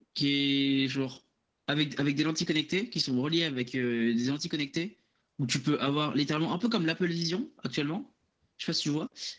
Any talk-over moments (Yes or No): No